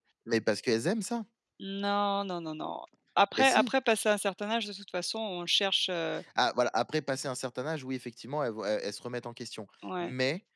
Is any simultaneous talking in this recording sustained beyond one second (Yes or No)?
No